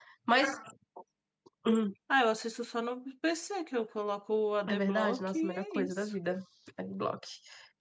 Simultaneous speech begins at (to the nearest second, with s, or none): 5 s